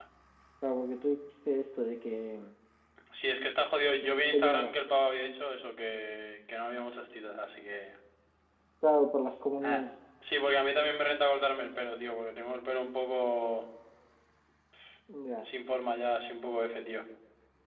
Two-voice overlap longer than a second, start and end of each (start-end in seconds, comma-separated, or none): none